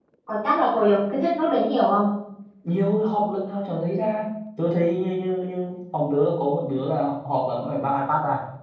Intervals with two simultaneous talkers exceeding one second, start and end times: none

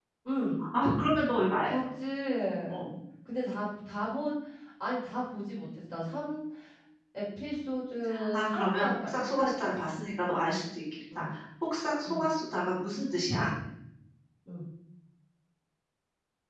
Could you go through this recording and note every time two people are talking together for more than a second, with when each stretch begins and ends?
8.3-9.7

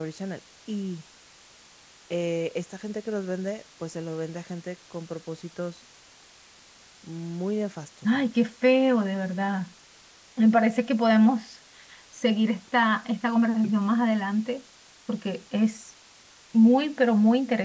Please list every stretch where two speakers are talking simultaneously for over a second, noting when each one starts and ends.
none

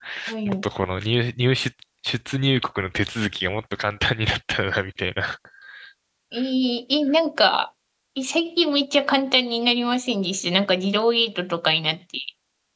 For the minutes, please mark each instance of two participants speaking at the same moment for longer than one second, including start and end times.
none

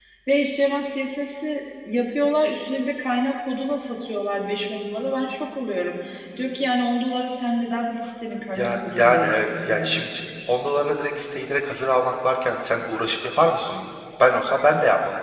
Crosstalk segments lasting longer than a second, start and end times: 8.6-10.1

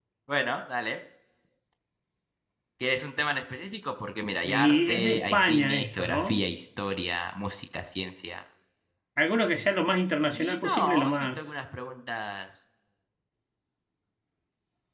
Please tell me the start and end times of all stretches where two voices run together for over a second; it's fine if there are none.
4.4-6.5, 10.3-11.6

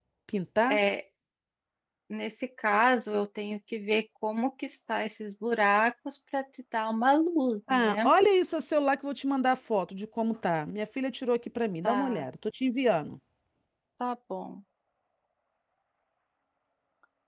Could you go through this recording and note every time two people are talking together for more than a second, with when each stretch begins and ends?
none

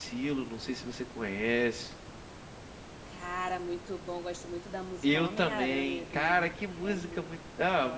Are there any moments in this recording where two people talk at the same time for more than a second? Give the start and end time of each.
5.0-7.3

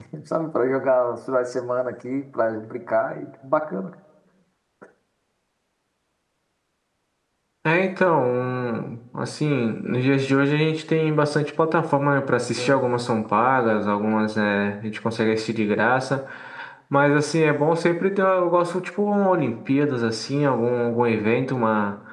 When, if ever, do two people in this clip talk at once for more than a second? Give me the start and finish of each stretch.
none

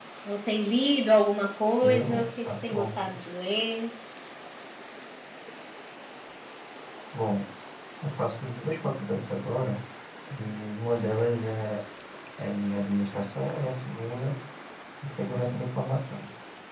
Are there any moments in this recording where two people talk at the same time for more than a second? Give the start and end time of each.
1.9-3.1

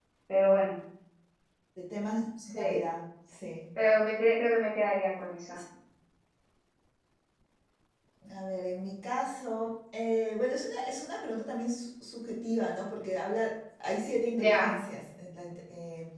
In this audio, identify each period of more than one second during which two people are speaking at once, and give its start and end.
none

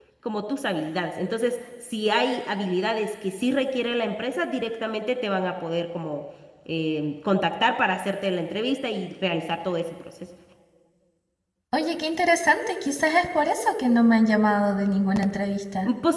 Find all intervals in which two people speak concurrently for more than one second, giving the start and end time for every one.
none

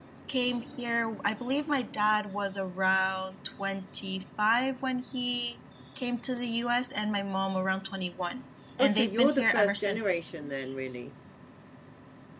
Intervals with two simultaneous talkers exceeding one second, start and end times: 8.8-10.2

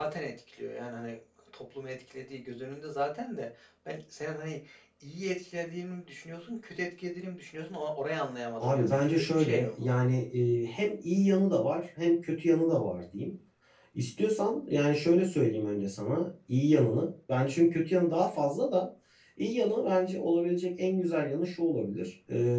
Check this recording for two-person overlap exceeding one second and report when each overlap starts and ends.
8.6-9.8

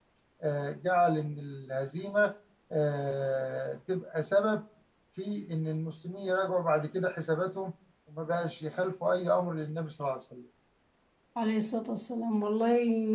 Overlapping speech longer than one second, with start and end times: none

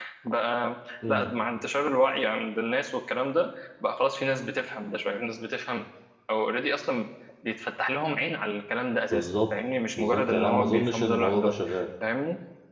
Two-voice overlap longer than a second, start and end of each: 10.0-11.5

